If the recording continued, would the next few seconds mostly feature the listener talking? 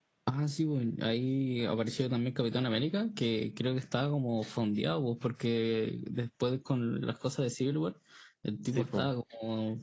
No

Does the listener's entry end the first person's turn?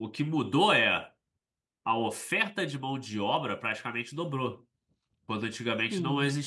No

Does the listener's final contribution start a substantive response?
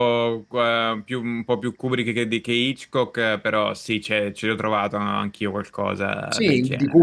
Yes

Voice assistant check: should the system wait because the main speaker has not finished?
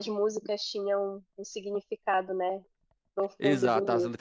No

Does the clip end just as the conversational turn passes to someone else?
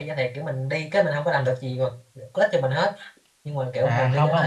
Yes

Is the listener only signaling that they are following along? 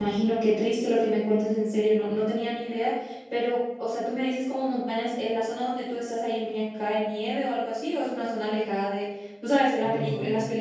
Yes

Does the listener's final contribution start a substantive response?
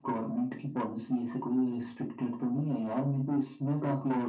Yes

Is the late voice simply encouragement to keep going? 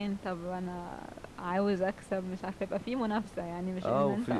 No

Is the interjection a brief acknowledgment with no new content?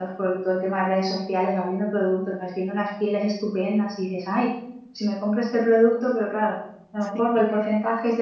Yes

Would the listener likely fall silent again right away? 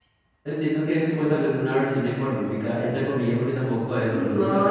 No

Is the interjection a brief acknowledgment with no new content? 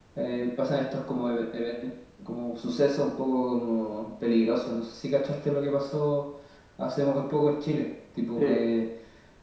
Yes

